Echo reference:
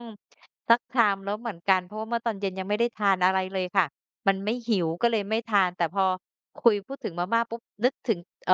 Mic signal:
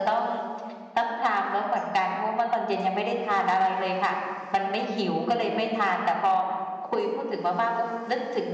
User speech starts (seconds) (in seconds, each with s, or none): none